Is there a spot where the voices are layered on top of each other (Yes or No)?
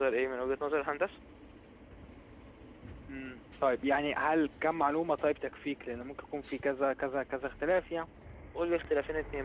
No